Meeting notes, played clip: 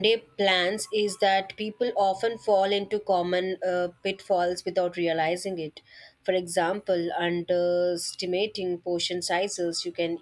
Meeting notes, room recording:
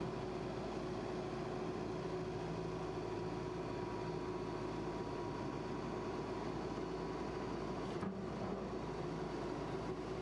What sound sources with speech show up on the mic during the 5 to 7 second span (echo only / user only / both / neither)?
neither